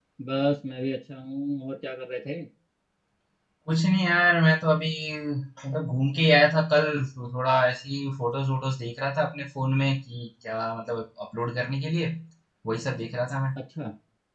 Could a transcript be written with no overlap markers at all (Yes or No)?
Yes